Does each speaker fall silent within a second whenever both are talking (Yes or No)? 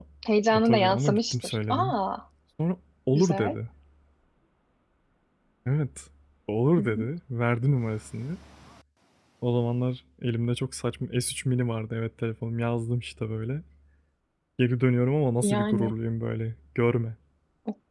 No